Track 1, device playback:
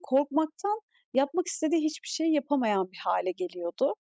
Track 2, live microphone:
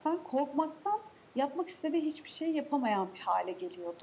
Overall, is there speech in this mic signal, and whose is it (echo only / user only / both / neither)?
echo only